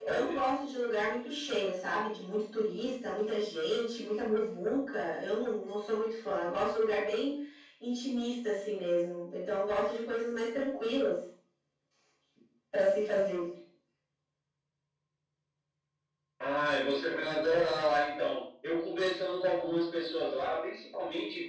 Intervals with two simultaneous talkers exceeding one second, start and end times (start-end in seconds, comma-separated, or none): none